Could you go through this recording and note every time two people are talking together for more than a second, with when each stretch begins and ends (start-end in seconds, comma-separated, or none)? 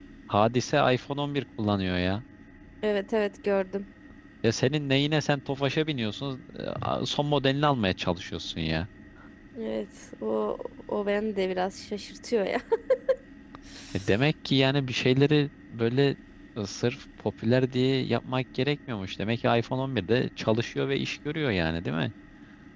none